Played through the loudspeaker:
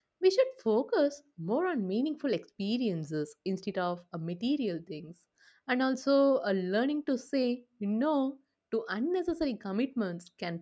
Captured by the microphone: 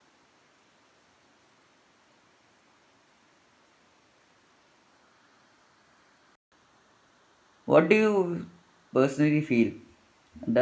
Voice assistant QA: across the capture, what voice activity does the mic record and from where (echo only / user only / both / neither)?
user only